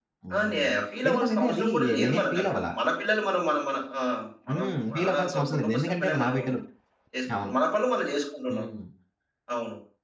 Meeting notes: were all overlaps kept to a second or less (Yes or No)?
No